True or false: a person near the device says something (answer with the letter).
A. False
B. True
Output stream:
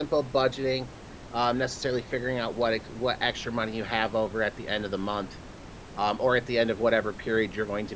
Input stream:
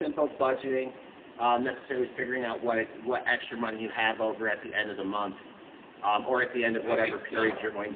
B